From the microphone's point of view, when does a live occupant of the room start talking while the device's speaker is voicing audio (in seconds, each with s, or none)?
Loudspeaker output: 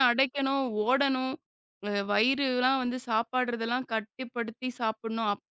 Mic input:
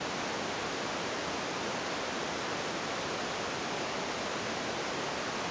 none